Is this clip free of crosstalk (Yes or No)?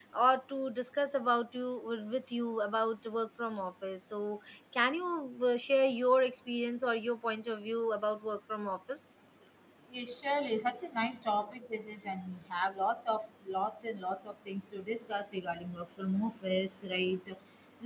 Yes